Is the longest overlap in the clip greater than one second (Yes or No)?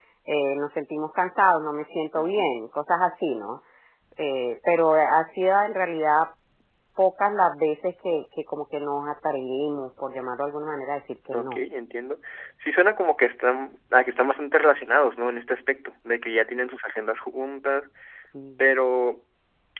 No